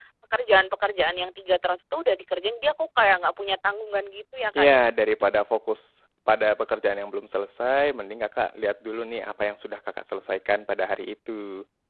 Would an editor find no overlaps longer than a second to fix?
Yes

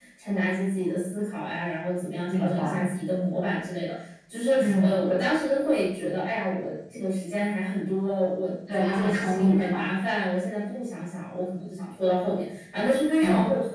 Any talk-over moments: Yes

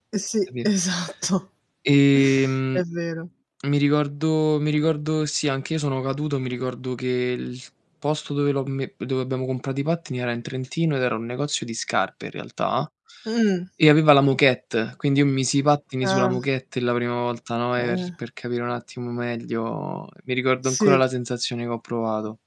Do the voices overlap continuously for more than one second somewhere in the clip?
No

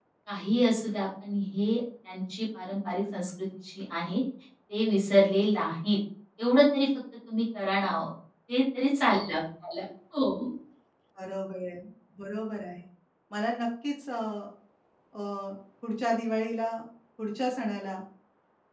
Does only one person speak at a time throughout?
Yes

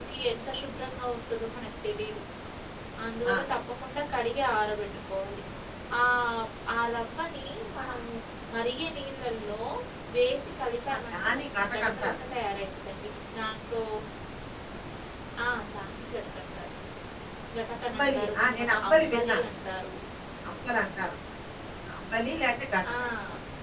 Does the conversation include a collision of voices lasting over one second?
Yes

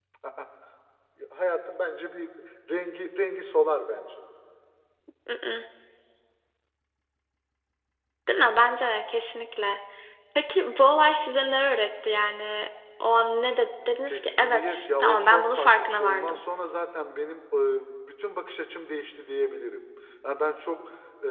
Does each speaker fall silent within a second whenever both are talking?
No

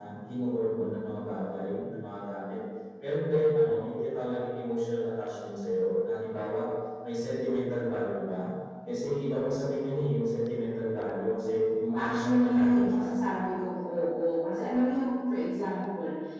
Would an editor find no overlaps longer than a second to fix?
No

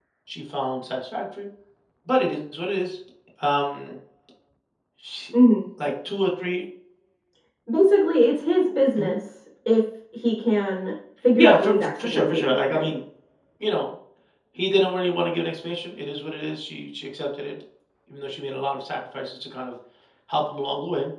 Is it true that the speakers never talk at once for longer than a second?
No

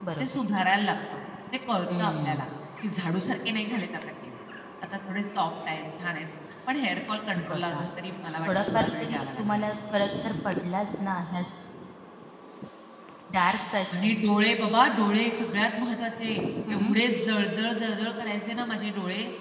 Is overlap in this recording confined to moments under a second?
No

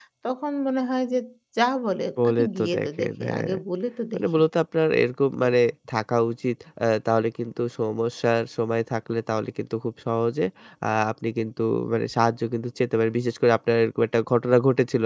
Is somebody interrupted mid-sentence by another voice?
Yes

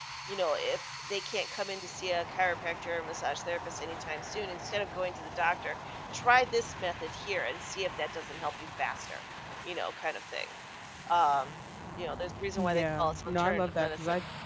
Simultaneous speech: Yes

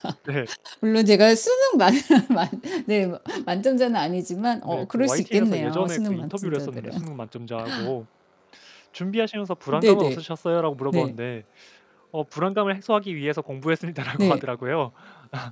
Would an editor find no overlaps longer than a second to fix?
No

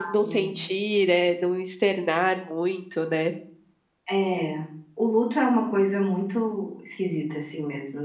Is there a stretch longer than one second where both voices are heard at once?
No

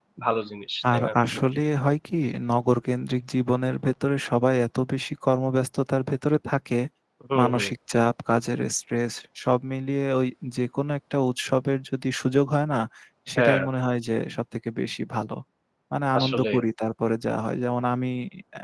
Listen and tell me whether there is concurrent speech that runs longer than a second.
No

